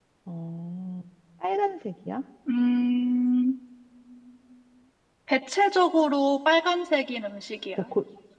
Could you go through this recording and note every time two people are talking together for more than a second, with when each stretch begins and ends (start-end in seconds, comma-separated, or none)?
none